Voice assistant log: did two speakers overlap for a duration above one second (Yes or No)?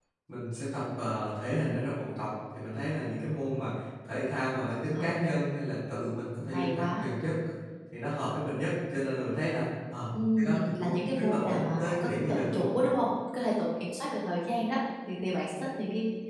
Yes